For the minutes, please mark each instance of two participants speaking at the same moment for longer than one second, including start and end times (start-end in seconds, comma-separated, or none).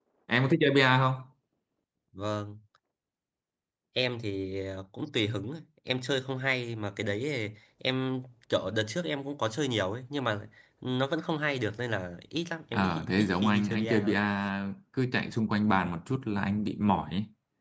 12.7-14.2